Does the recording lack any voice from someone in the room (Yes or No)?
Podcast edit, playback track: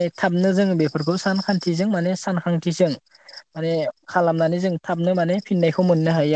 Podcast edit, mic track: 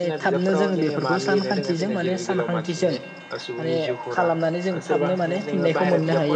No